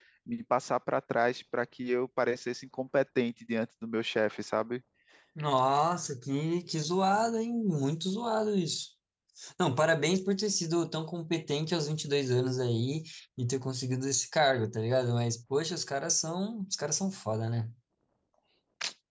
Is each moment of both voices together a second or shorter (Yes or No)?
Yes